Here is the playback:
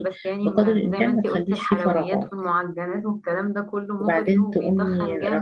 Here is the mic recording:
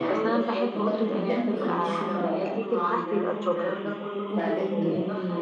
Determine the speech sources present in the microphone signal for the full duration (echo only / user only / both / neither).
both